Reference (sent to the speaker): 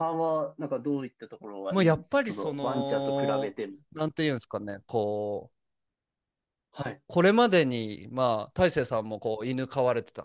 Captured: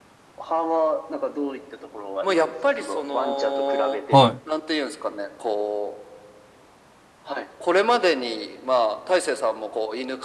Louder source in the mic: user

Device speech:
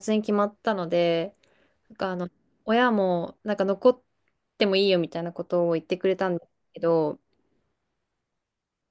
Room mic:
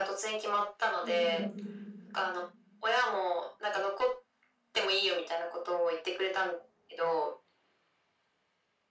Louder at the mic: echo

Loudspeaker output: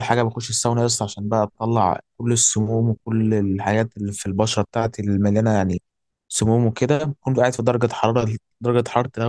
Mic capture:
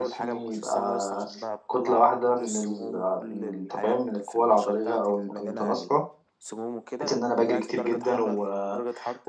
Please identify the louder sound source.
user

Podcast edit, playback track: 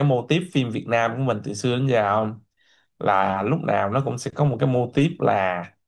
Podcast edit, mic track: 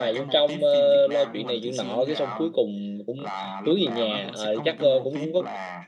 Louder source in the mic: user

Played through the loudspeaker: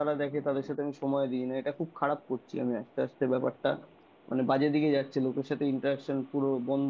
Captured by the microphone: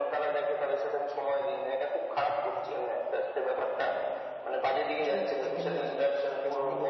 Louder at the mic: echo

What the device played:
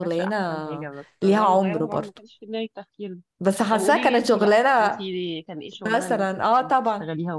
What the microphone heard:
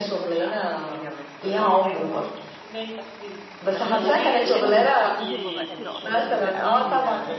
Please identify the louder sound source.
echo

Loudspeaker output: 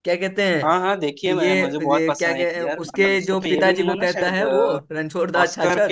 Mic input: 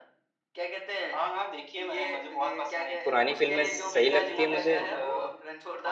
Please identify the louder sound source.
user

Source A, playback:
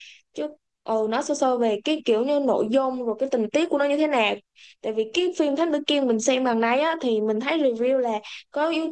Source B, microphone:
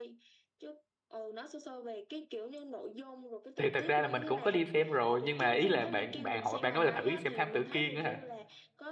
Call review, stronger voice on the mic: user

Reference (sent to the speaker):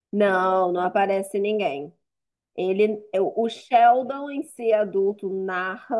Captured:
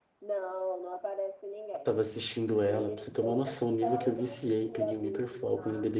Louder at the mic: user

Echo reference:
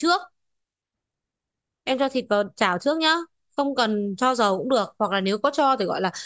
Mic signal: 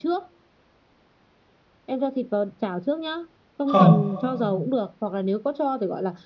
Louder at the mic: user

